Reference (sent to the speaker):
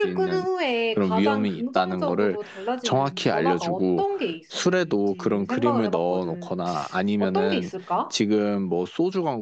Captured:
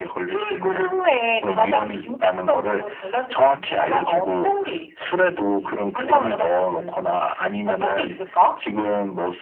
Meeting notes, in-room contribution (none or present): none